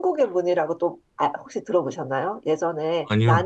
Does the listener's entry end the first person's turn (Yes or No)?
No